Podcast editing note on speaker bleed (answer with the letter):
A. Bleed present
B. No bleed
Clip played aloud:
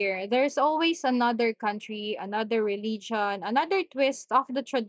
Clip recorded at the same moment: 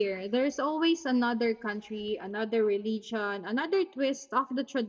A